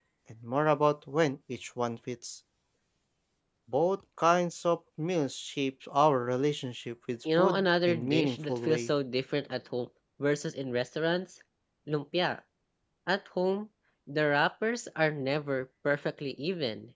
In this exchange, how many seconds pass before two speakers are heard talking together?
7.2 s

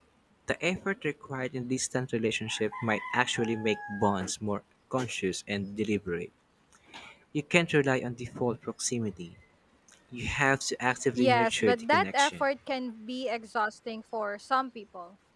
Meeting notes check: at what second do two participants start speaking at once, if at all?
11.2 s

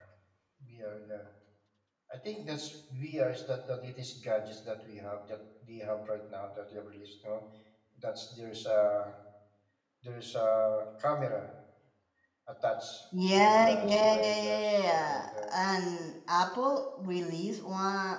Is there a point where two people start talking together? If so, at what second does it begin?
13.4 s

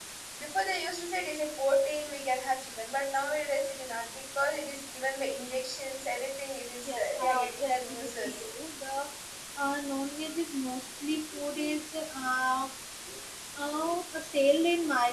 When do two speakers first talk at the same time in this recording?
6.9 s

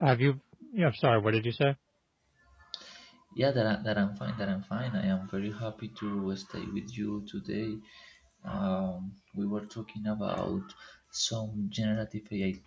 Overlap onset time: none

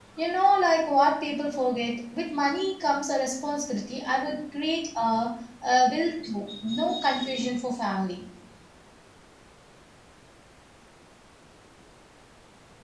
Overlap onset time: none

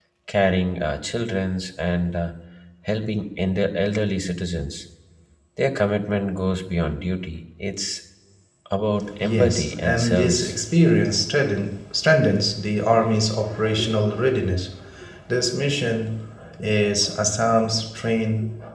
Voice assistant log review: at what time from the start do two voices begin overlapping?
9.2 s

